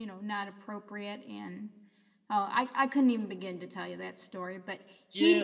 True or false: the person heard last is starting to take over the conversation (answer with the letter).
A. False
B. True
B